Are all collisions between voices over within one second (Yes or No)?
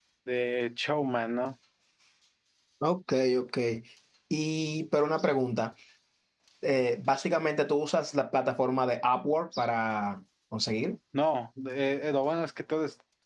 Yes